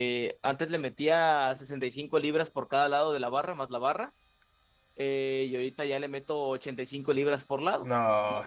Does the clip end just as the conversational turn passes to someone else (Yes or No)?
Yes